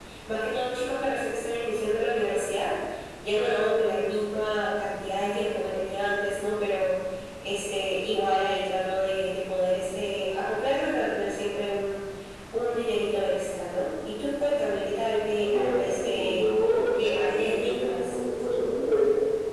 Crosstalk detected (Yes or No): Yes